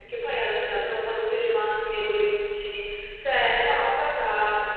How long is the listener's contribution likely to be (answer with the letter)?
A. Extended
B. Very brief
B